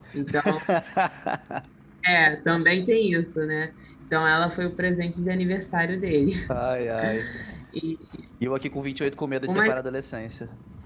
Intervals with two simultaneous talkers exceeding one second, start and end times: none

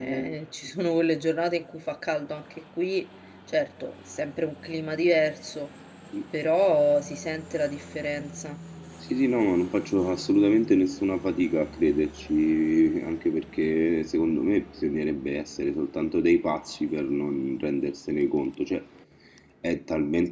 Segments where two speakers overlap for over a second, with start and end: none

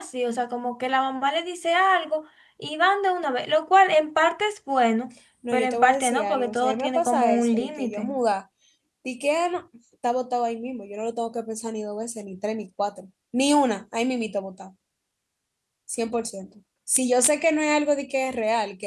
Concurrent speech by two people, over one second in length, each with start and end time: 5.5-8.1

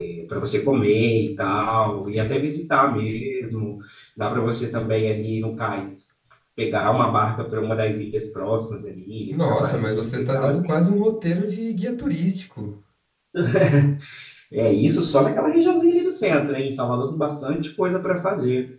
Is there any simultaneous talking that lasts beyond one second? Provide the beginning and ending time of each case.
9.3-10.5

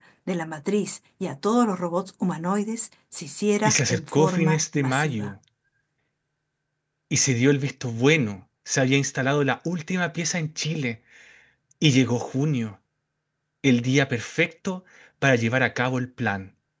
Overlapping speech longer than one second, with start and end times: 3.6-5.3

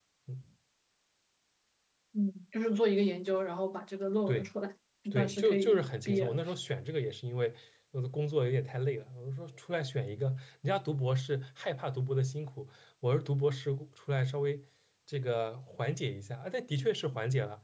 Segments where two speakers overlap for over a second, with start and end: 5.1-6.4

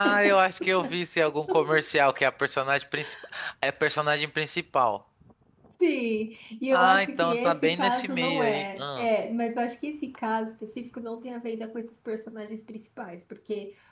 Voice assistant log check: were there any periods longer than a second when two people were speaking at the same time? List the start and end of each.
6.7-9.1

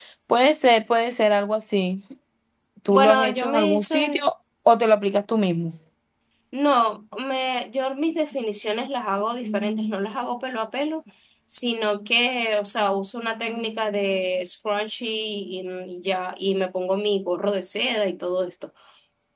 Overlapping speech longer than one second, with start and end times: 2.9-4.2

